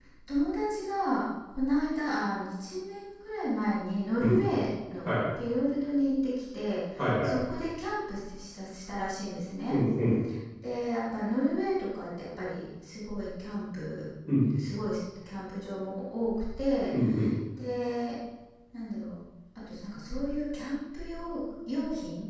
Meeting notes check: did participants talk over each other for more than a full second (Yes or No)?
No